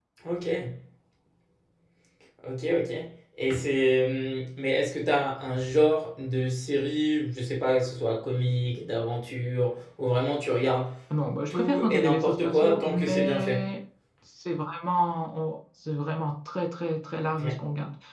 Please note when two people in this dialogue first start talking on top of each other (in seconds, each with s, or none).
11.5 s